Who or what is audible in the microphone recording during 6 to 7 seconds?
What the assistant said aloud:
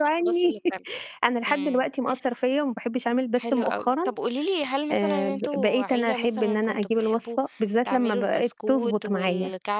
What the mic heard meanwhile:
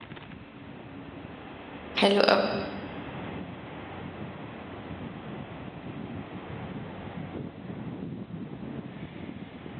neither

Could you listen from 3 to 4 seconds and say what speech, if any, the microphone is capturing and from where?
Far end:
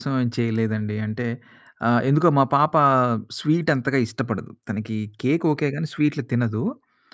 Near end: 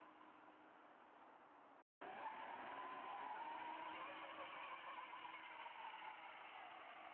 neither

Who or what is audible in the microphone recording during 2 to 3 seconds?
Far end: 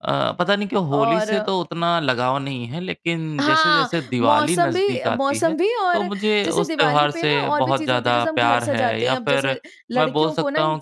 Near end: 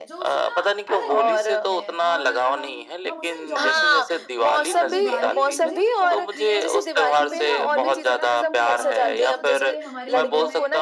both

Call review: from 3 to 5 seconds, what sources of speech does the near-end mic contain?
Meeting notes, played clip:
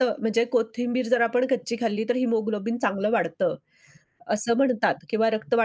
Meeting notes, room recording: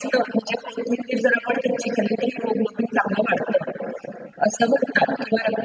echo only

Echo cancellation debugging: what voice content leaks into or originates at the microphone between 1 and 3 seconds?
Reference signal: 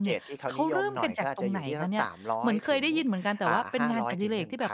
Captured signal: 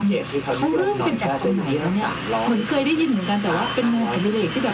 echo only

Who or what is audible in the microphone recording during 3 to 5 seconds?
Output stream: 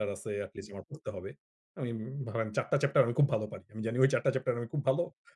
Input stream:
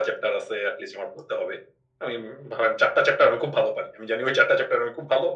echo only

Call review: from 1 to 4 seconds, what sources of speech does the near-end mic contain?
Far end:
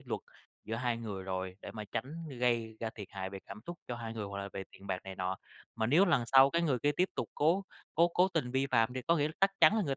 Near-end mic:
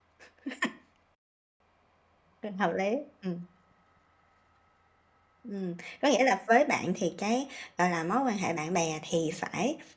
user only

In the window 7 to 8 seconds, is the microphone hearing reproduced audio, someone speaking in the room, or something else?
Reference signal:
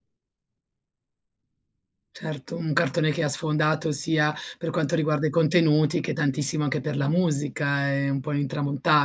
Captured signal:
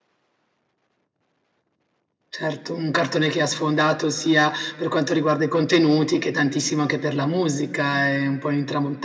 echo only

